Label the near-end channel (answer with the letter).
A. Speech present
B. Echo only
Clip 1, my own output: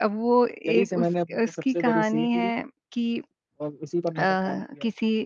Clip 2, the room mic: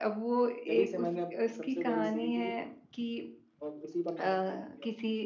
B